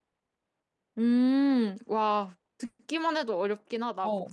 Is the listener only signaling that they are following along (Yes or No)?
No